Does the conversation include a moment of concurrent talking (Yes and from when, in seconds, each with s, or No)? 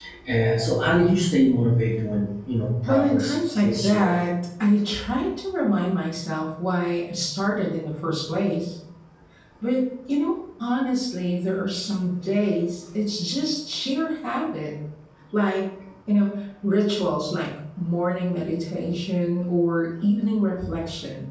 Yes, from 2.8 s